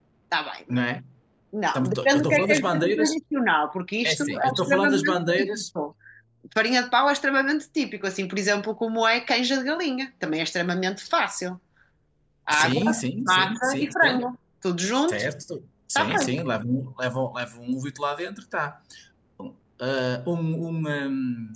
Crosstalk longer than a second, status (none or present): present